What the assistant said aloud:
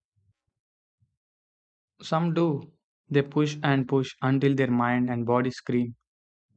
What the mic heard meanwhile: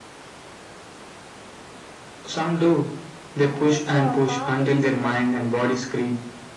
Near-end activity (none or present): present